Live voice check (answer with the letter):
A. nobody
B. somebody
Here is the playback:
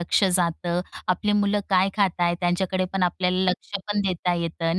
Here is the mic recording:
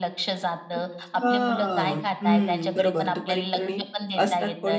B